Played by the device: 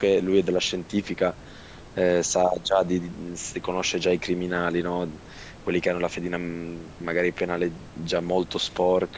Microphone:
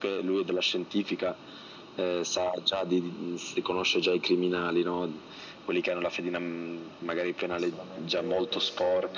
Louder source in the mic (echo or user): echo